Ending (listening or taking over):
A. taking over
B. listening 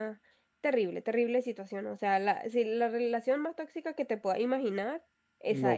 A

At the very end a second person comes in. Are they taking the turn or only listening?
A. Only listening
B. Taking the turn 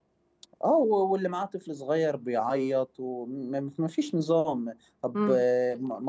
A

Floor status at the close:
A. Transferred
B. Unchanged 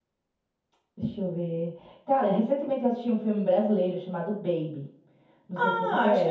A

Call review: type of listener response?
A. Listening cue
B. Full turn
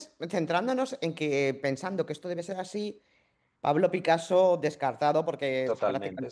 A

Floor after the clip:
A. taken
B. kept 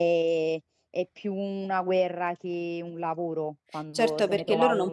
A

